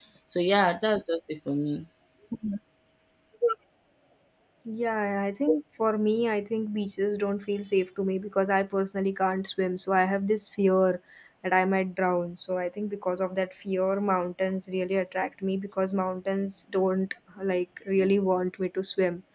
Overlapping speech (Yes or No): No